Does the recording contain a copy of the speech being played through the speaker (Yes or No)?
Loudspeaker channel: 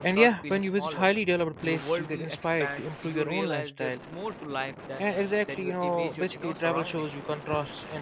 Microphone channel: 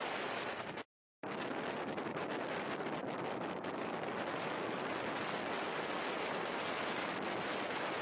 No